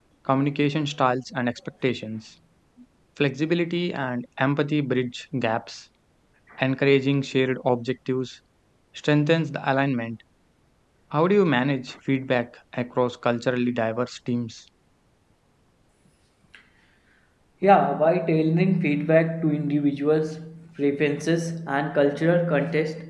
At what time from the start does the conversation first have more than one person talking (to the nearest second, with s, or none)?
none